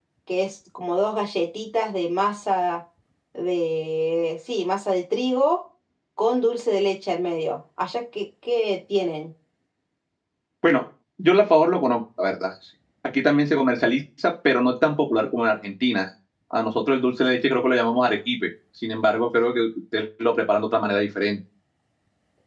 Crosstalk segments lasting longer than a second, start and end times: none

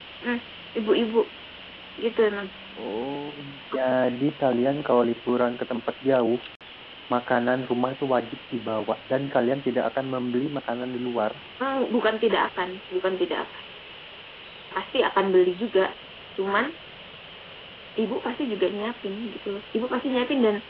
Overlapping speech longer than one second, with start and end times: none

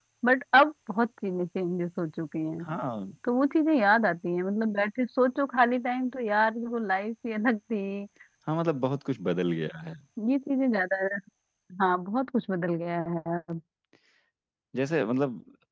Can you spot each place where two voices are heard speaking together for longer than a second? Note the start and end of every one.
none

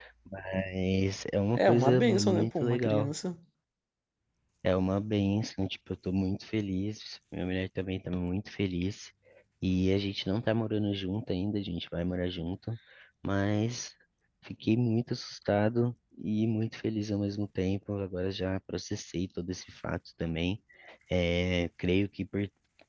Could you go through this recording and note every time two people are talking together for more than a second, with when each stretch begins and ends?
1.5-3.1

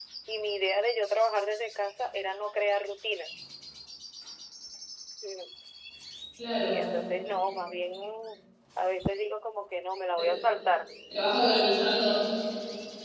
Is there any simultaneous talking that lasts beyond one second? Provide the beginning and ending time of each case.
none

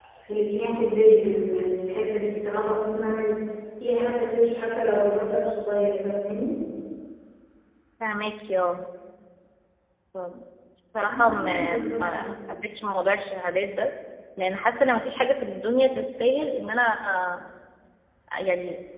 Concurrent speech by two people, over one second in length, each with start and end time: 11.0-12.3

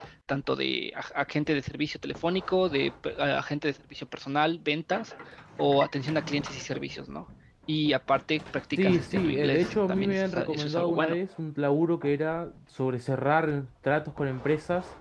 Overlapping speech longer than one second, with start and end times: 8.8-11.2

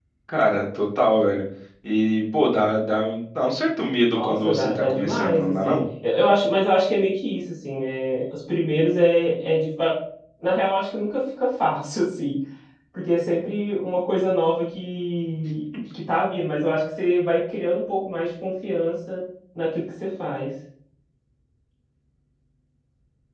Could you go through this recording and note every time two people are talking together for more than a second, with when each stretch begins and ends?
4.1-5.8

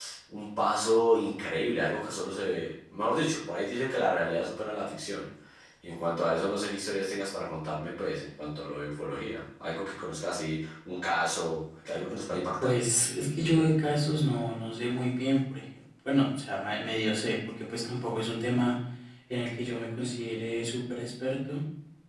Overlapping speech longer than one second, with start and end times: none

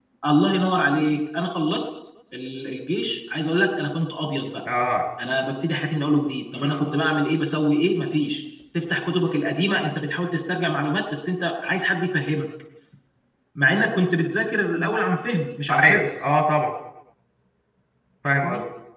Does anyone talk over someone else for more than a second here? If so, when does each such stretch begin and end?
none

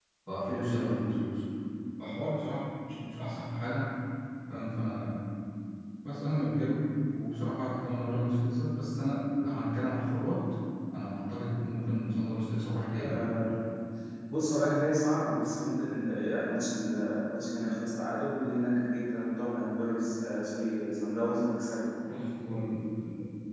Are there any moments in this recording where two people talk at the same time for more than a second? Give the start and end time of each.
none

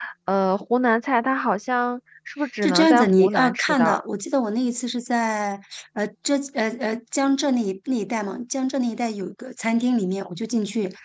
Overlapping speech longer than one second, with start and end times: 2.6-4.0

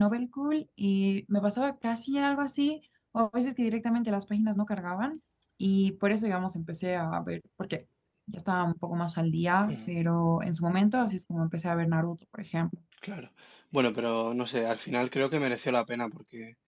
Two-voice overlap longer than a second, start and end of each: none

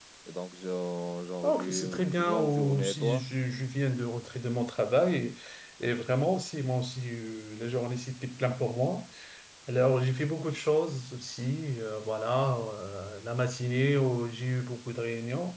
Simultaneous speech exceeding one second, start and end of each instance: 1.4-3.2

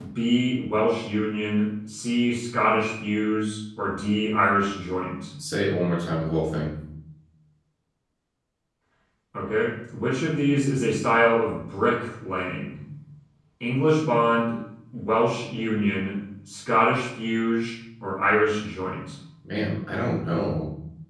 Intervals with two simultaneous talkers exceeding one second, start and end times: none

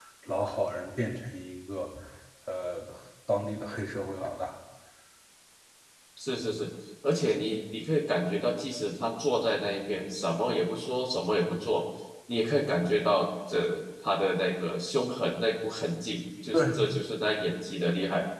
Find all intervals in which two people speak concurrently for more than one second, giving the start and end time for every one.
none

